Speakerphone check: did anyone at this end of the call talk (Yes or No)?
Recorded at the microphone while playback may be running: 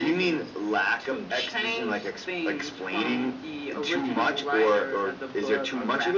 No